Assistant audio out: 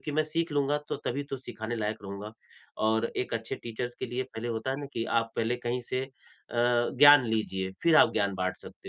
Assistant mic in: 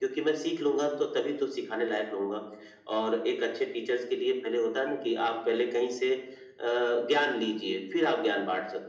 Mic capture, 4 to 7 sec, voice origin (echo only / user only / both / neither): echo only